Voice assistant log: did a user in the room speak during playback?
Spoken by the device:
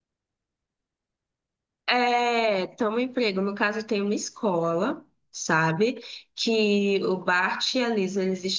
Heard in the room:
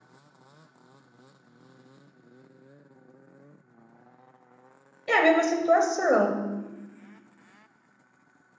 Yes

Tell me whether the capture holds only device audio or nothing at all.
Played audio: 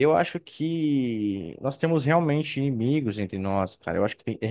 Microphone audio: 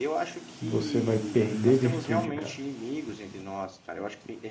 No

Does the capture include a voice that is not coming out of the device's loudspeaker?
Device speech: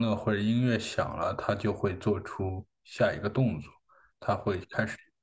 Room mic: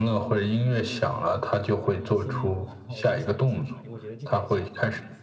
Yes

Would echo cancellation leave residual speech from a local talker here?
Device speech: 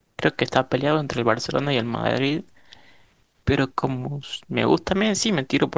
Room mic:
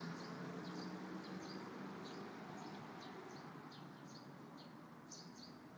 No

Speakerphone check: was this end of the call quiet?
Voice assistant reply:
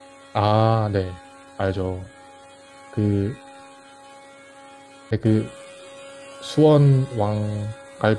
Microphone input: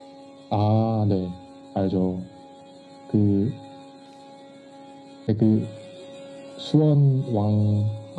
Yes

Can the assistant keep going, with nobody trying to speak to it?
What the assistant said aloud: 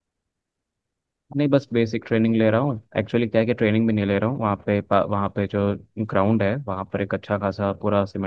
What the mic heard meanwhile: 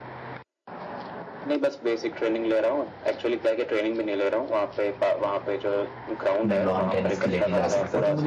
No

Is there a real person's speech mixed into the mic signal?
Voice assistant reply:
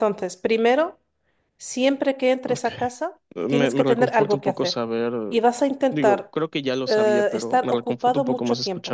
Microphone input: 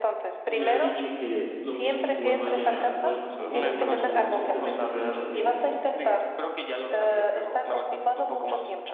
Yes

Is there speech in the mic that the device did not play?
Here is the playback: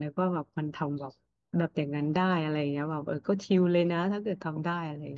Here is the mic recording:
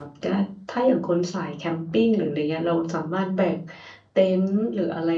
Yes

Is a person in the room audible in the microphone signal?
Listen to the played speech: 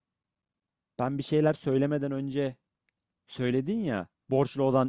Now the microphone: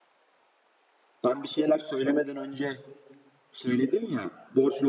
No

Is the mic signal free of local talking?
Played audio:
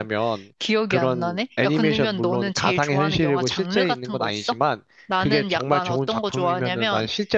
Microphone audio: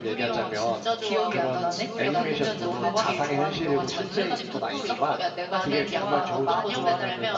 No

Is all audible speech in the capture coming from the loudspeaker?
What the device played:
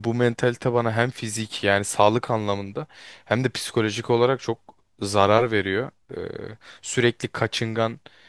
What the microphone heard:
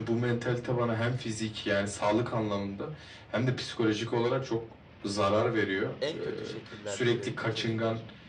No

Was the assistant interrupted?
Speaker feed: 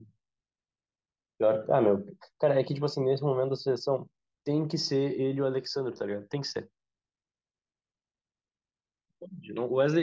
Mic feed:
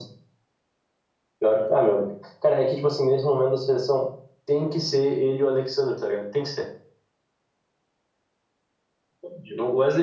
No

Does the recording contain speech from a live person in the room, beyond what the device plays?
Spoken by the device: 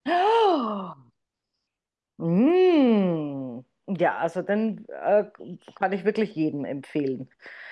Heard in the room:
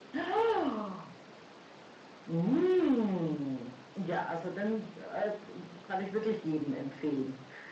No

